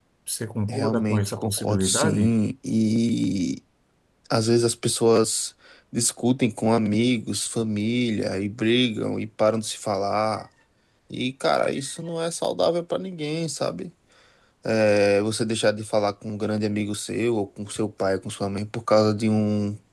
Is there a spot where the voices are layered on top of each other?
Yes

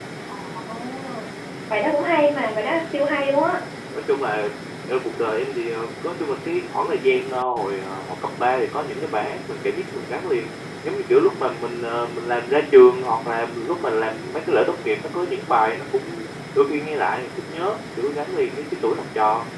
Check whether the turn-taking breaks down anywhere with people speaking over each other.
No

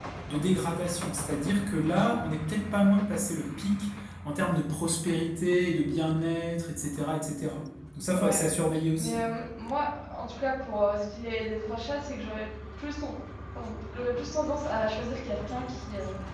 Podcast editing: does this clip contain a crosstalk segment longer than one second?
No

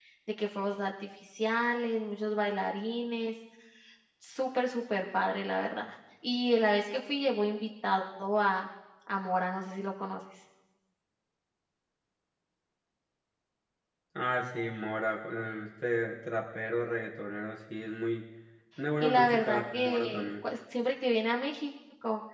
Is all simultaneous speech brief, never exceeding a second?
No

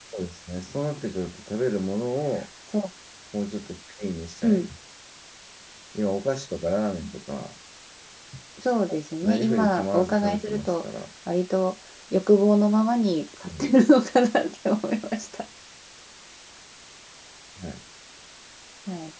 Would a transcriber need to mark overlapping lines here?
Yes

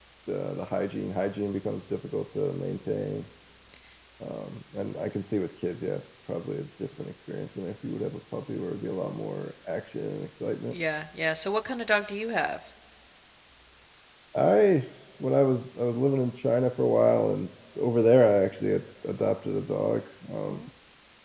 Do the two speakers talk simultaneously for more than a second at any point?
No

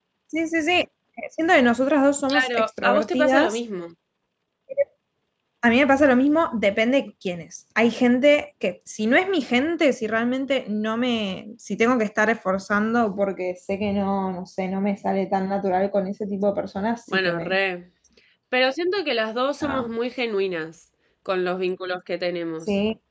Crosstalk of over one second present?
Yes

